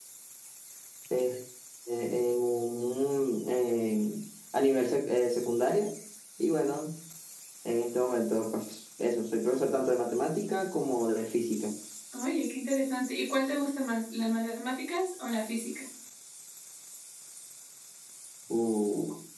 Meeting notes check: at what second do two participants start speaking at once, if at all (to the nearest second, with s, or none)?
none